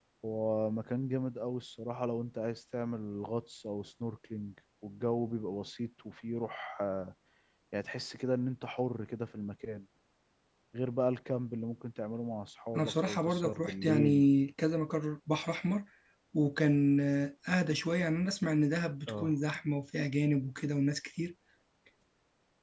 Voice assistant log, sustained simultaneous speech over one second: present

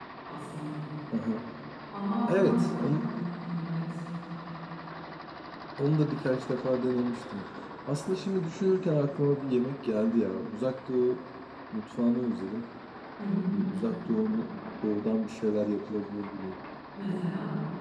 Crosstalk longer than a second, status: none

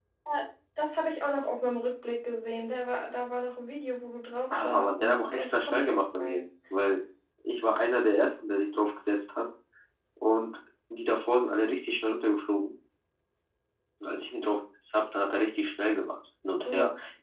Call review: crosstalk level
present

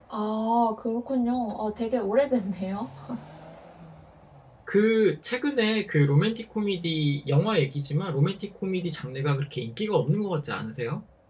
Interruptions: none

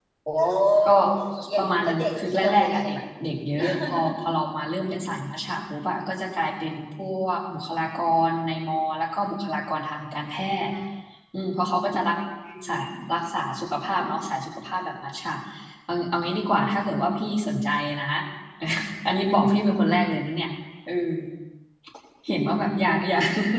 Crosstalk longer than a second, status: present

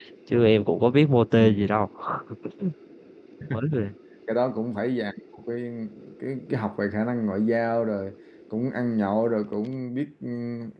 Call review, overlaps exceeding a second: none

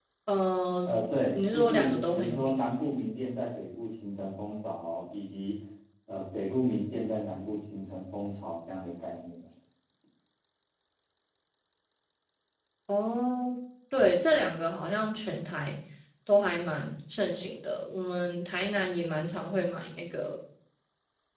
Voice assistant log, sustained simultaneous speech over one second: present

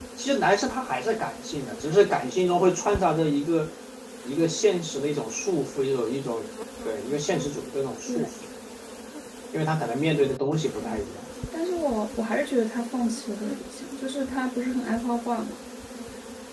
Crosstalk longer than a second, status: none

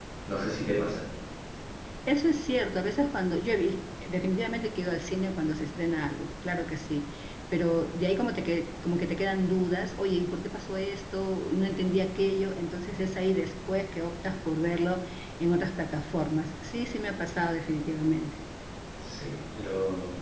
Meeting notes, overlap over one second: none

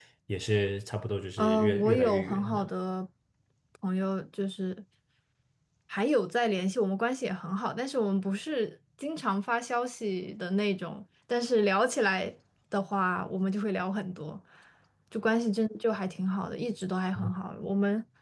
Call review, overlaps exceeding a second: present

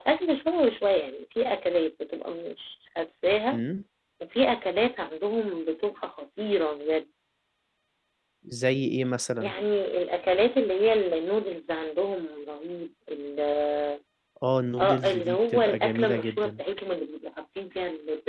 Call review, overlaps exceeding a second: present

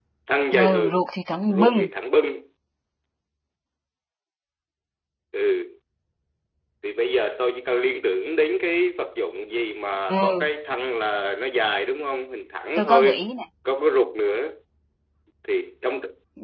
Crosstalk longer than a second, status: none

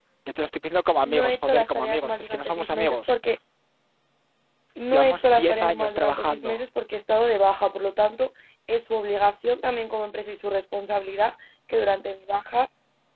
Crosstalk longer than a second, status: present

